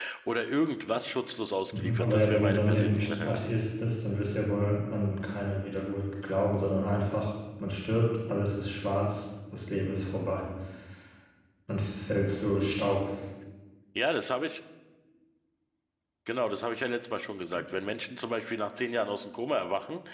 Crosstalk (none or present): present